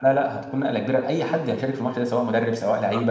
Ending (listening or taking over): listening